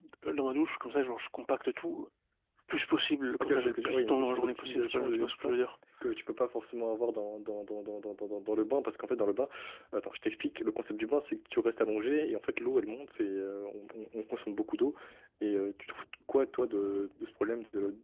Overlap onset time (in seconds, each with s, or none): 3.4 s